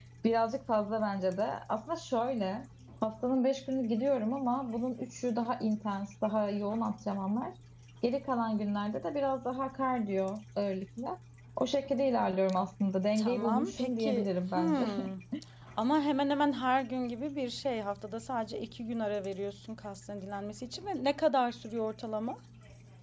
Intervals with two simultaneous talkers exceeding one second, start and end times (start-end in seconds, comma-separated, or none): 13.2-14.9